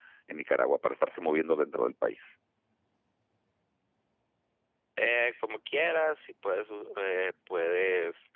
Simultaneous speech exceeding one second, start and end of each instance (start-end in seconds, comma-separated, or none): none